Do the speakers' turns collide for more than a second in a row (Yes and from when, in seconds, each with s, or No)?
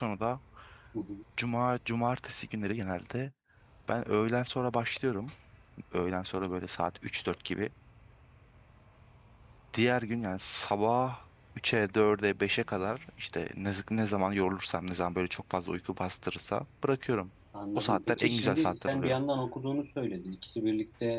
Yes, from 17.8 s